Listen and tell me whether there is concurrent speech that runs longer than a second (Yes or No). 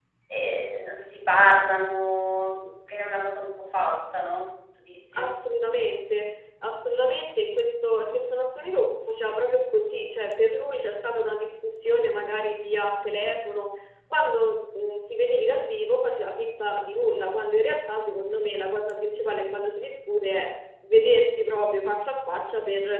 No